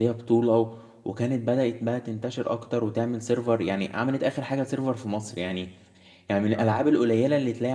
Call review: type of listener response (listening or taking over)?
listening